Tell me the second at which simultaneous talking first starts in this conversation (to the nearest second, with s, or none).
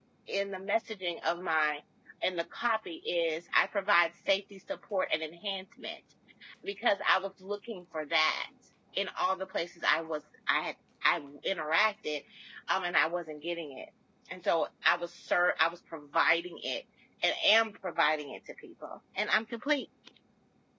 none